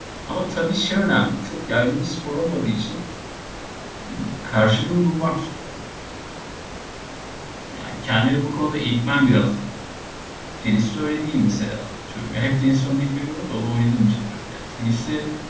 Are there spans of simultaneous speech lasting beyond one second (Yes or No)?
No